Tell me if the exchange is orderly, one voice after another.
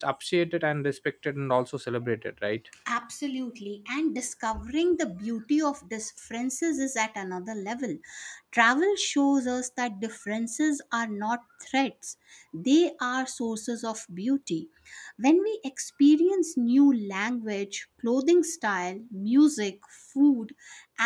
Yes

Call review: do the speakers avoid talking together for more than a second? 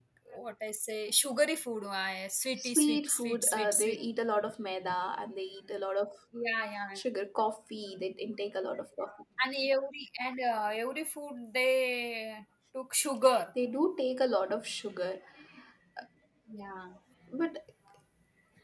No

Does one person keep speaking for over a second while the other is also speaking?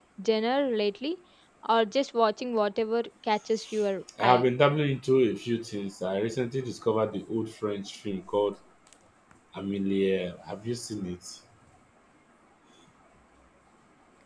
No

